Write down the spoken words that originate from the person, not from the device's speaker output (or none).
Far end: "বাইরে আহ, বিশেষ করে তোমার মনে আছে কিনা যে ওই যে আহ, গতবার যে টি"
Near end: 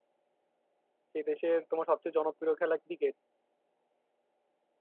সেই দেশের তোমার সবচেয়ে জনপ্রিয় খেলা ক্রিকেট